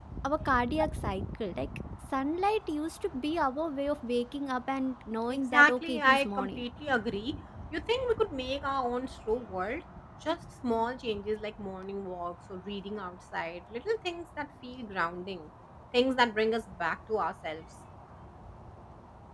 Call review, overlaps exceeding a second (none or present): present